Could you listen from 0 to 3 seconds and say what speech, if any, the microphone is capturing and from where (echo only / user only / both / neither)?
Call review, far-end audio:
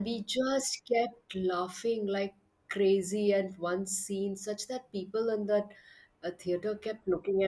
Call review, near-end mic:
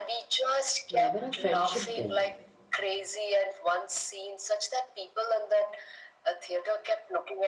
both